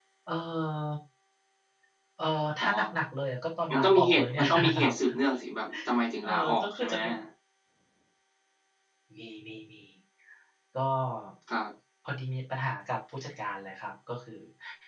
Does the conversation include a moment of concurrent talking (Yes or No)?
Yes